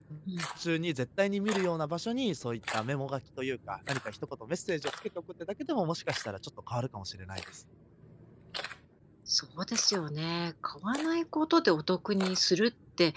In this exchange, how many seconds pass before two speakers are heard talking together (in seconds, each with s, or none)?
none